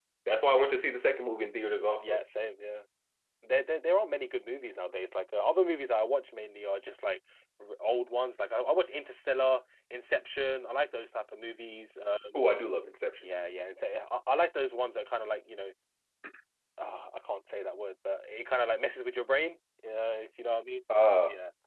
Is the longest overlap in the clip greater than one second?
No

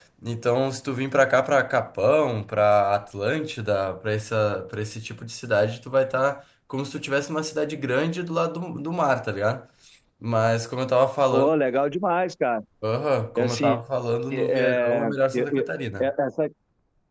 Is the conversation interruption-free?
No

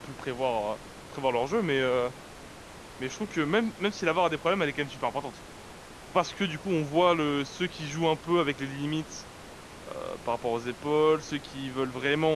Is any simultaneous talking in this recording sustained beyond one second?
No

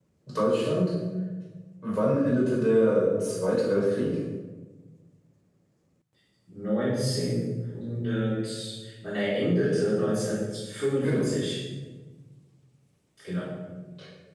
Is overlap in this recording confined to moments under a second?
Yes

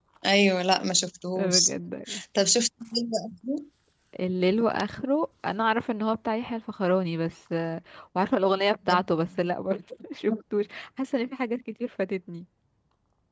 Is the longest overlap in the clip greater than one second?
No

